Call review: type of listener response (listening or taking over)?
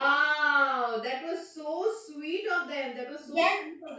taking over